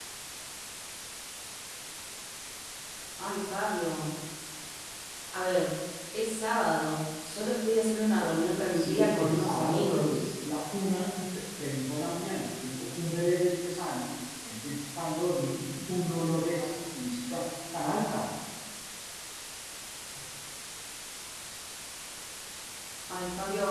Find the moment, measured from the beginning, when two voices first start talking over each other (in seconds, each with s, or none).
8.7 s